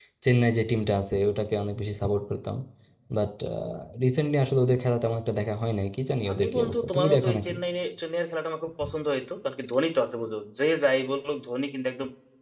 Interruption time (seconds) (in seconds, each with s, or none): 6.3 s